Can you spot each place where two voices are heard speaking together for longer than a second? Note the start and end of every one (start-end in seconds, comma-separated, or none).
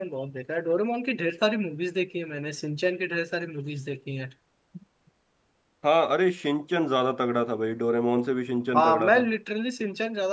none